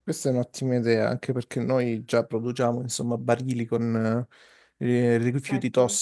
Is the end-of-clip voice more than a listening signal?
No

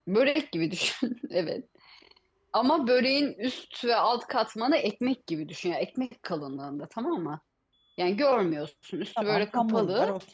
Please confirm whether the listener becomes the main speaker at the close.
Yes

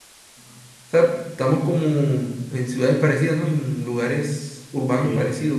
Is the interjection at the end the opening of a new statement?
Yes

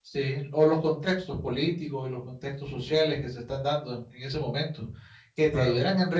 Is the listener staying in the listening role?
Yes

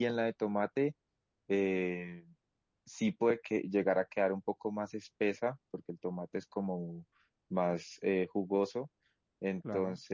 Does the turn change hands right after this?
No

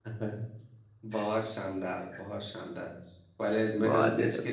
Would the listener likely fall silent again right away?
Yes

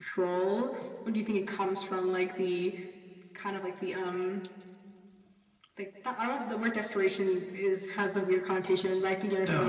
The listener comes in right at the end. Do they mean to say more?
No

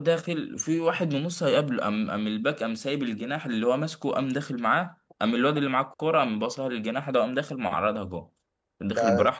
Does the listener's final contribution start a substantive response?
No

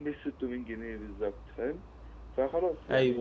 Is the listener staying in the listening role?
No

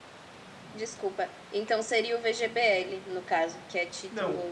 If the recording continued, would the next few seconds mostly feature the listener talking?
Yes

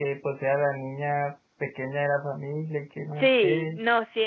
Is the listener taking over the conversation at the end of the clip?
Yes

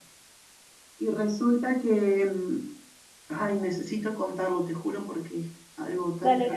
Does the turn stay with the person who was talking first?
No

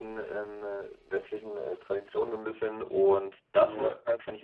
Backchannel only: Yes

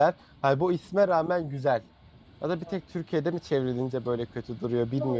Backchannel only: No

